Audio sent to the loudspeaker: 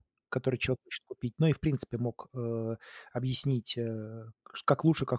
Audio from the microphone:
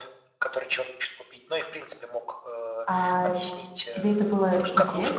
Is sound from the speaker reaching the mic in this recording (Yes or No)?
Yes